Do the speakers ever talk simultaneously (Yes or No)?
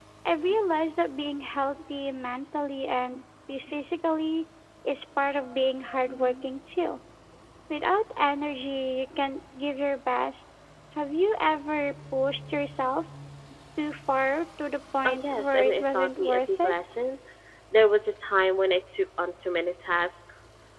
Yes